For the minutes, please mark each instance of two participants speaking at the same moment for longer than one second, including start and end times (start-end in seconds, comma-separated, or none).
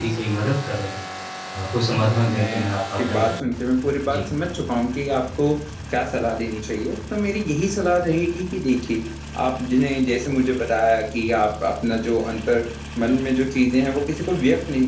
1.9-3.5